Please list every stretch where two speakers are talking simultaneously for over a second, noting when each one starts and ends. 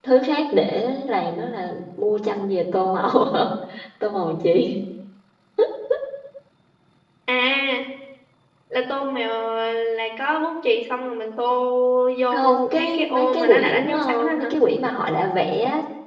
12.3-14.5

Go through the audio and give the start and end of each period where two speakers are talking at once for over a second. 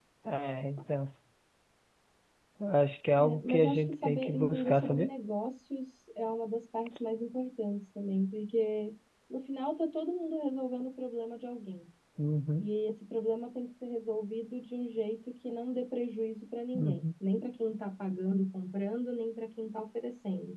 3.2-5.1

